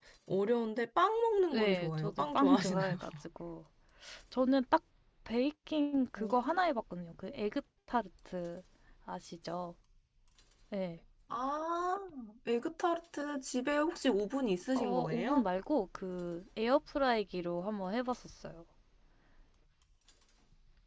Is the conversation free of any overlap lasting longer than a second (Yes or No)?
No